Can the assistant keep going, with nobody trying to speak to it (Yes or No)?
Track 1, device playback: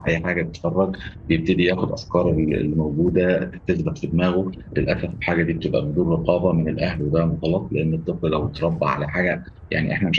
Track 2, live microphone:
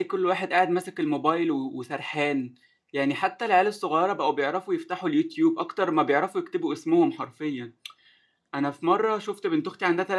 No